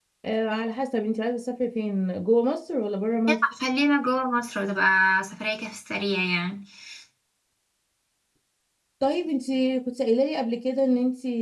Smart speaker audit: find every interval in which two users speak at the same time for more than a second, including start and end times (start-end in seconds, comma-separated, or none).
none